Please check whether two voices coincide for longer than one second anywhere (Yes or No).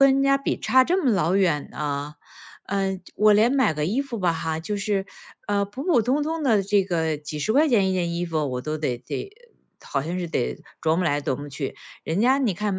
No